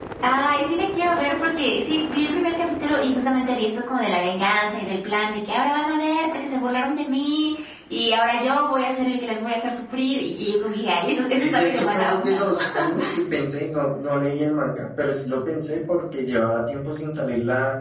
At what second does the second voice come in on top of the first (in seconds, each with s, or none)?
11.3 s